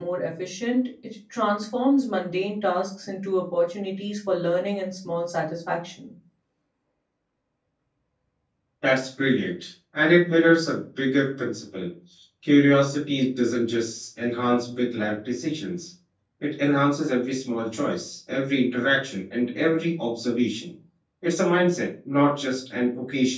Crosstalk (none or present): none